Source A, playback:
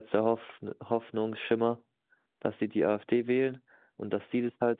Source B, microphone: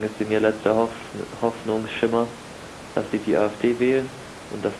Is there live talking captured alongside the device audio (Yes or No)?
No